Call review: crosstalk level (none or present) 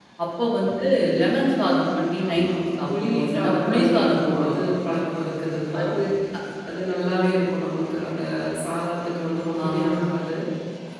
present